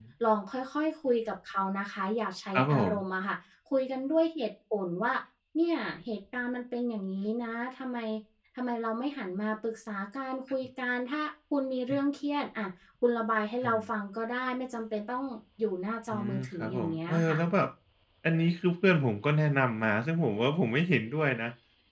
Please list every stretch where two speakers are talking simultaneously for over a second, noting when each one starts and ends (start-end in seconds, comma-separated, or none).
16.1-17.4